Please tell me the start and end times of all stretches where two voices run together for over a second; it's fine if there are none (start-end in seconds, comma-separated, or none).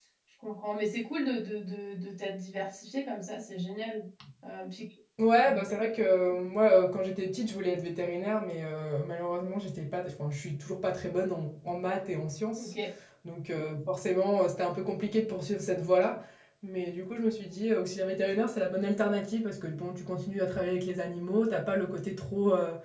none